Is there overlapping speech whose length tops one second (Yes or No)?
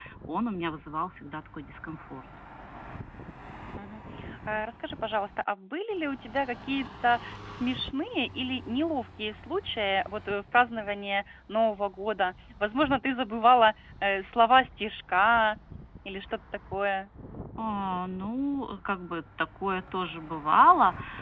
No